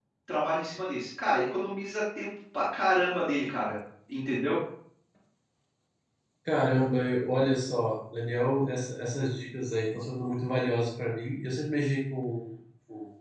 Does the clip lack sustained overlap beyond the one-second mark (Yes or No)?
Yes